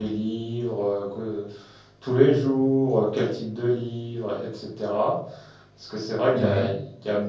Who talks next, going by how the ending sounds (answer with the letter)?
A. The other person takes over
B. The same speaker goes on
B